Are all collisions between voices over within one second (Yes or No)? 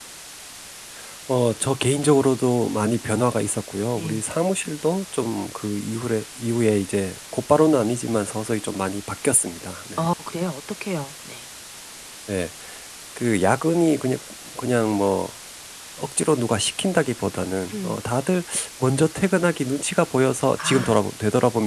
Yes